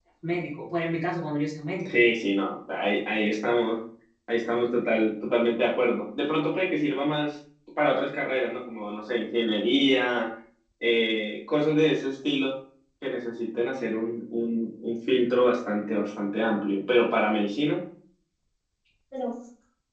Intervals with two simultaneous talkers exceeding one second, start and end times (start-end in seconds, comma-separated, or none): none